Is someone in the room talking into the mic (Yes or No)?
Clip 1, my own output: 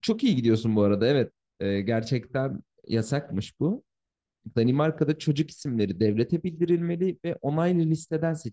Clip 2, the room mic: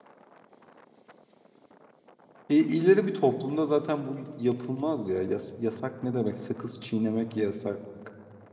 Yes